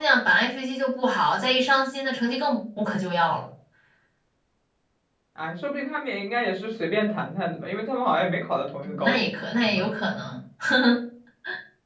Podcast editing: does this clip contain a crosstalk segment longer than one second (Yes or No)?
No